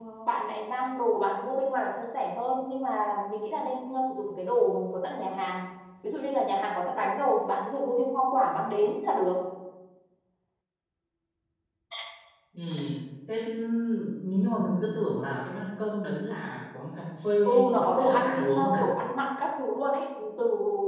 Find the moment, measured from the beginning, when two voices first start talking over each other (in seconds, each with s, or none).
17.4 s